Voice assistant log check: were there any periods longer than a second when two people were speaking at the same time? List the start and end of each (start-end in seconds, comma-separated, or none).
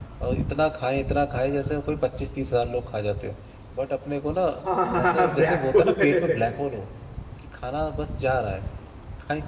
5.0-6.4